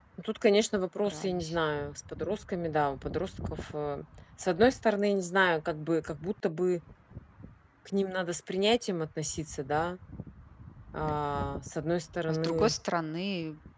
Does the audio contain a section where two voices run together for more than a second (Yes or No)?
No